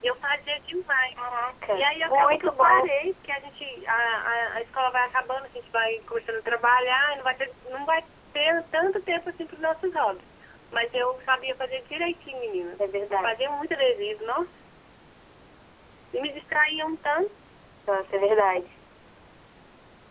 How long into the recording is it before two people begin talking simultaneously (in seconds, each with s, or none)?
1.7 s